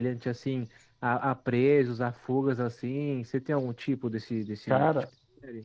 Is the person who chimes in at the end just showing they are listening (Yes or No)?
No